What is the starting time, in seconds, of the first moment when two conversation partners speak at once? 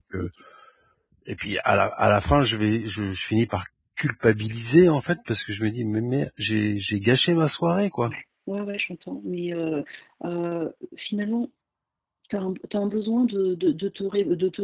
none

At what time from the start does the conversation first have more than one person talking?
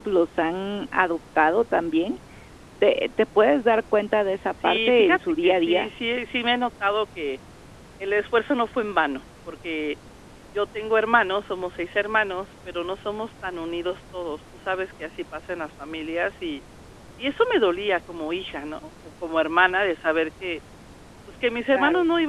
4.6 s

